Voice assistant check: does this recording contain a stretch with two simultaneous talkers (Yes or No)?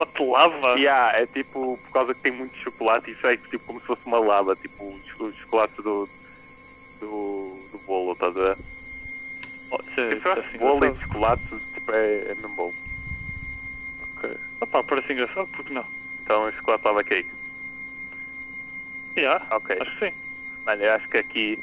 Yes